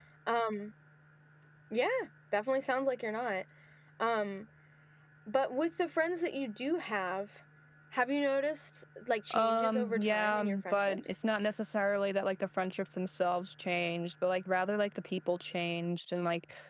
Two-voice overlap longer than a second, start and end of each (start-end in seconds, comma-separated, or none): 9.3-11.0